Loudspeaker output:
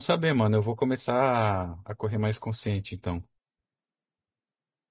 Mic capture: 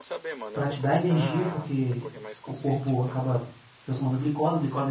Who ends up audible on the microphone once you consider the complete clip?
both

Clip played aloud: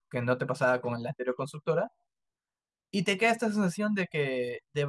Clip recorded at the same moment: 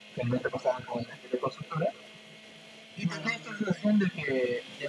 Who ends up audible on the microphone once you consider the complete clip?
both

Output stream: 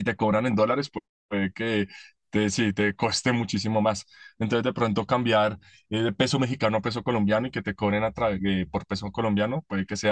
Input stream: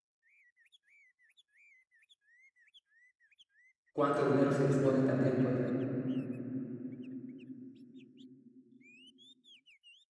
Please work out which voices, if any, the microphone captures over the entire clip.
user only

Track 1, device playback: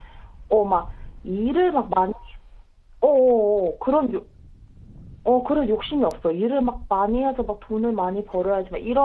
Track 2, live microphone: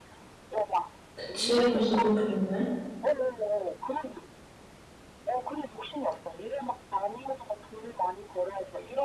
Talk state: both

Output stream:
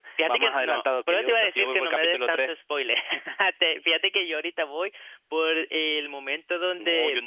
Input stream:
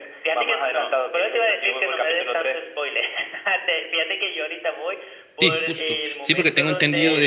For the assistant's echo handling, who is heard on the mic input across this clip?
both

